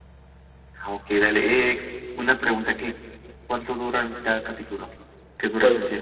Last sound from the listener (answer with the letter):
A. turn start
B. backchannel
A